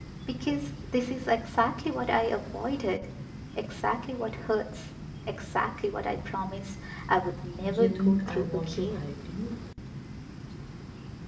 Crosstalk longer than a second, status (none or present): present